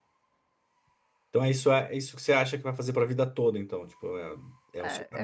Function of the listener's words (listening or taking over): taking over